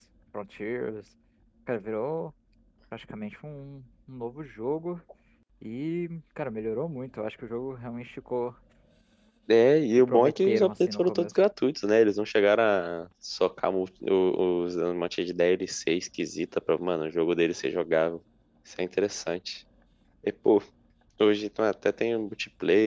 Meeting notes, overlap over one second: present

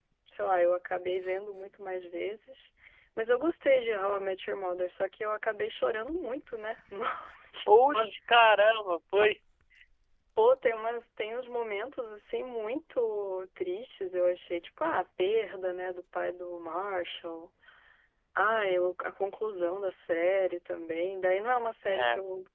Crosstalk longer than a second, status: none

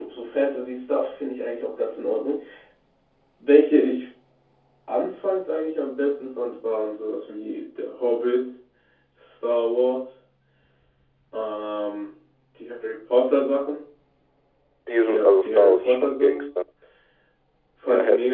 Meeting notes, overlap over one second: present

